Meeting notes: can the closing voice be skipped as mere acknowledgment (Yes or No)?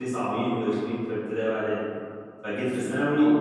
Yes